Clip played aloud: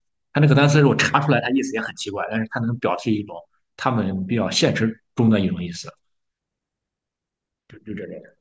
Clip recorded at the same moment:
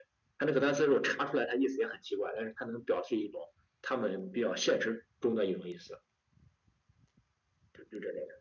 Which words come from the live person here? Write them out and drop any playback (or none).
none